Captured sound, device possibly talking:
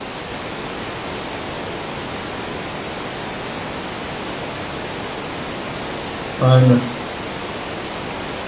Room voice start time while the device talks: 6.4 s

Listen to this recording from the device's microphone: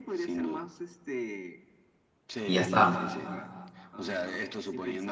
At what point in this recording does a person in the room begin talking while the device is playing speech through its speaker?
2.4 s

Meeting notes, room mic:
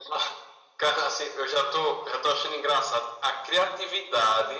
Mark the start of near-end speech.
none

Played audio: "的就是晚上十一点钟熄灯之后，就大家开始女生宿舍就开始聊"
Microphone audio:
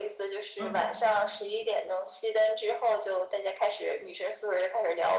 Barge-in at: 0.6 s

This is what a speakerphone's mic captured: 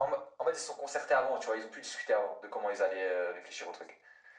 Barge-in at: none

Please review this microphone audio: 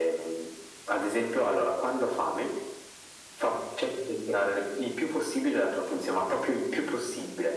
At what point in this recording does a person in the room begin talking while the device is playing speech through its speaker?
none

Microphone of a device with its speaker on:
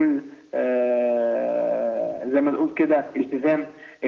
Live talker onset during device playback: none

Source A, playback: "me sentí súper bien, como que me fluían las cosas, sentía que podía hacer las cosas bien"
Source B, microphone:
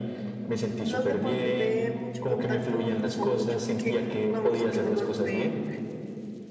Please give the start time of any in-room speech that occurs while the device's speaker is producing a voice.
0.9 s

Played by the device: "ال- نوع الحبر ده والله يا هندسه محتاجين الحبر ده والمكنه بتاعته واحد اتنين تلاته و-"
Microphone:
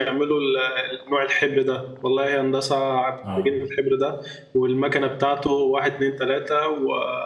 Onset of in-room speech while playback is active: 3.2 s

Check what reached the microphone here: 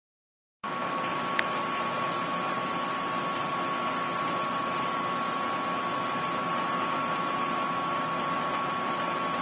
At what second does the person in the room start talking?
none

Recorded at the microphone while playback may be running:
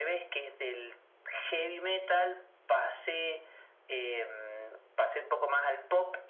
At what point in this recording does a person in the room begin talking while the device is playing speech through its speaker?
none

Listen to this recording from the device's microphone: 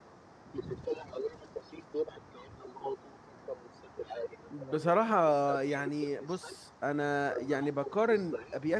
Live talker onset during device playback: 4.5 s

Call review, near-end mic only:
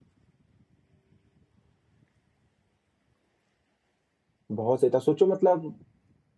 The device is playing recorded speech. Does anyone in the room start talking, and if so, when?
4.6 s

